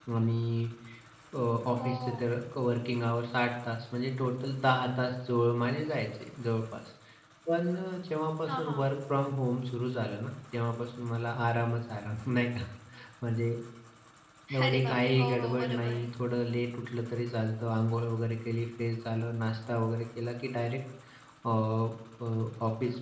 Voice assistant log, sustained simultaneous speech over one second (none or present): present